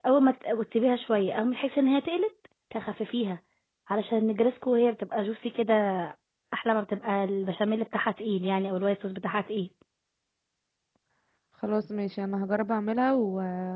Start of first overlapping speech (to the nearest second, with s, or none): none